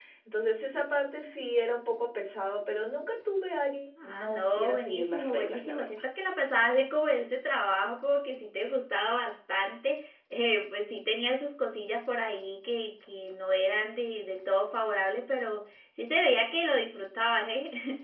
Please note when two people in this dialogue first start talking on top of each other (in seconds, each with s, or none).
4.0 s